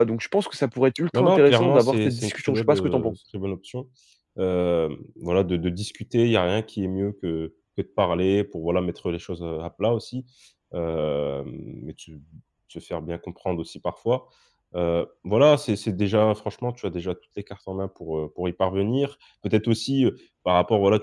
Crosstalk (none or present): present